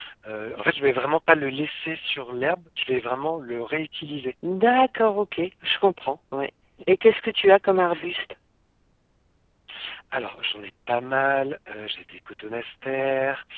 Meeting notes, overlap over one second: none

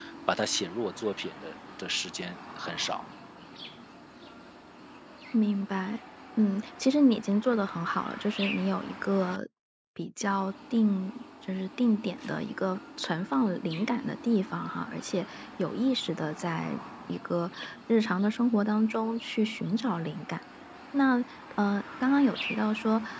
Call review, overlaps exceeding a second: none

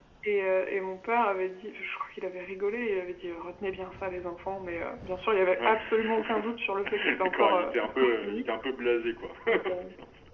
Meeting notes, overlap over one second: present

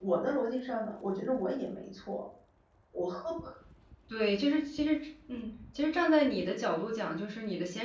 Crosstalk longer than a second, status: none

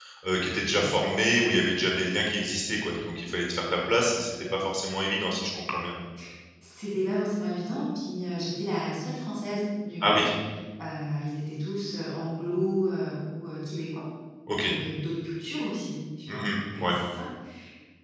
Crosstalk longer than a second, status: none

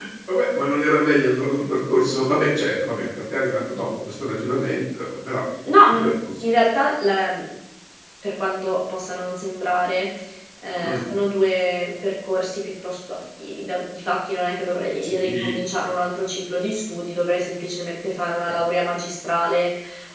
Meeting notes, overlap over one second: none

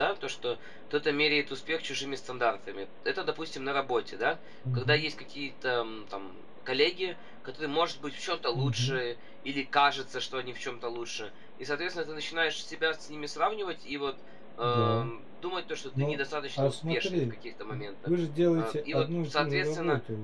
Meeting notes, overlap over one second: present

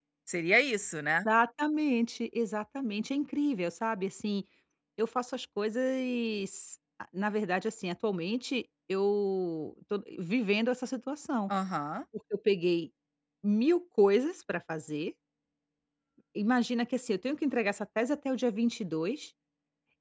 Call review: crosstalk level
none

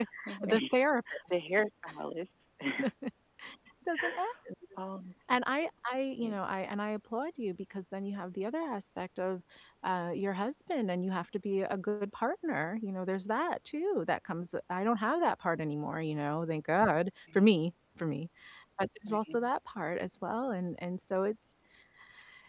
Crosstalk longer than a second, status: none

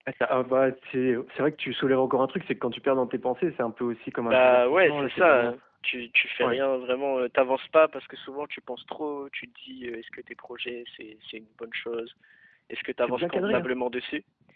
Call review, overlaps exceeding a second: present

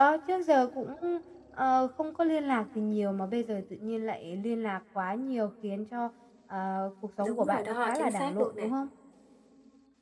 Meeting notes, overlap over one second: present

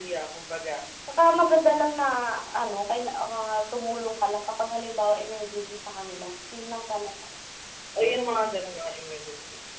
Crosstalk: none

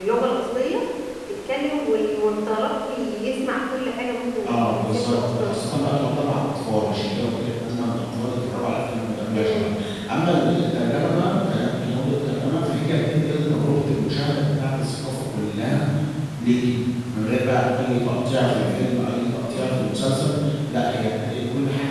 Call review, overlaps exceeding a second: present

